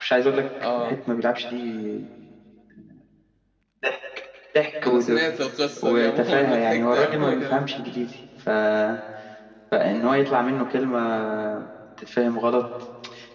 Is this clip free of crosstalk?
No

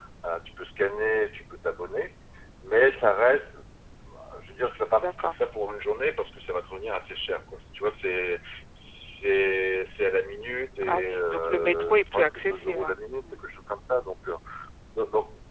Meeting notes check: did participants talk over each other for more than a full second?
Yes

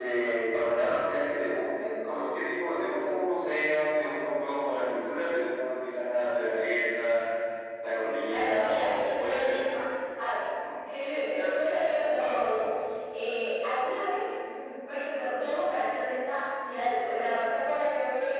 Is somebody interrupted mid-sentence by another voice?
Yes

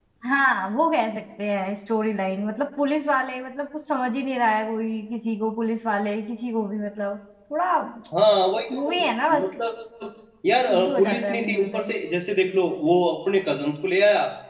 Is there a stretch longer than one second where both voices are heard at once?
Yes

